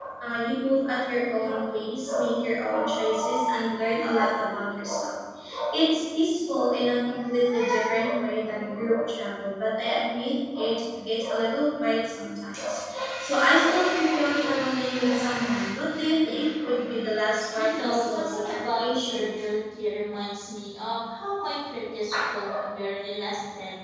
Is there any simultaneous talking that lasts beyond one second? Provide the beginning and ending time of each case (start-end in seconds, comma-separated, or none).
17.6-19.3